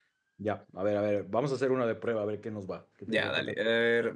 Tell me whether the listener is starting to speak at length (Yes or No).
Yes